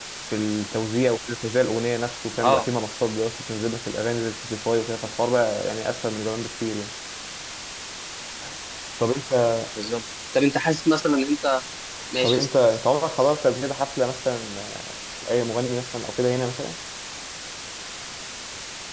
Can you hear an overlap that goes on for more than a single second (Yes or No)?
No